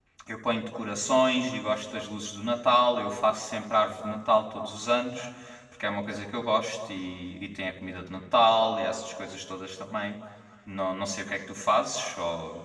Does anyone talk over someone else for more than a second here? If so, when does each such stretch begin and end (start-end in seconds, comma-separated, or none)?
none